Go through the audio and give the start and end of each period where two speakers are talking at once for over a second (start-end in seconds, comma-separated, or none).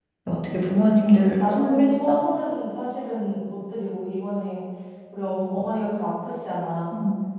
1.0-2.3